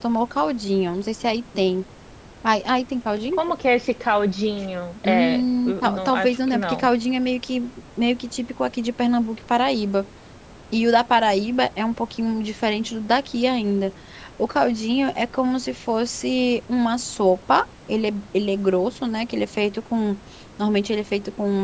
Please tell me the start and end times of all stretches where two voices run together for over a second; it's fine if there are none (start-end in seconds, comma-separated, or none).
5.1-6.9